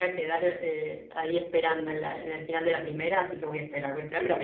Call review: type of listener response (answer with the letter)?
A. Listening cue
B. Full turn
A